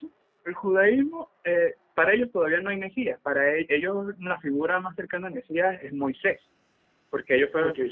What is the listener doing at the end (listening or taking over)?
listening